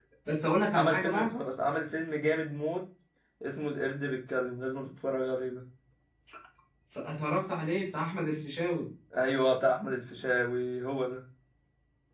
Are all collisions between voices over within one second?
Yes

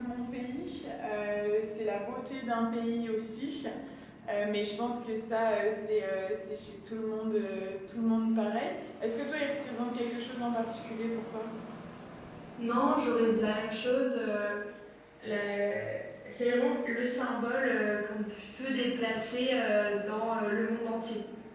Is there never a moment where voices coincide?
Yes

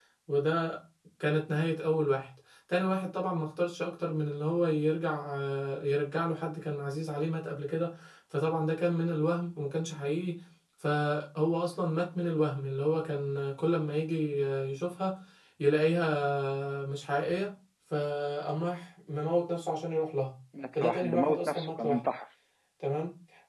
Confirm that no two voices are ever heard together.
No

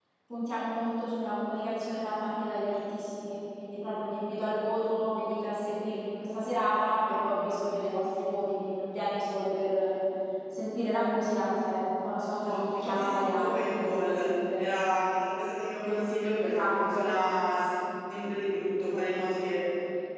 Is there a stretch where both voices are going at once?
Yes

